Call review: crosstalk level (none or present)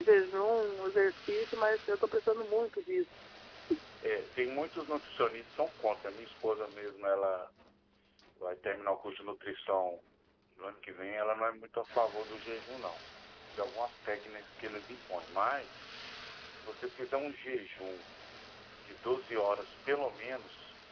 none